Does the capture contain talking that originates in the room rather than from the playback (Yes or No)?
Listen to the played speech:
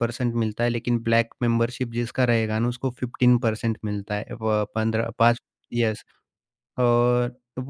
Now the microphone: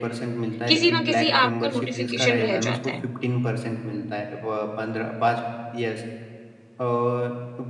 Yes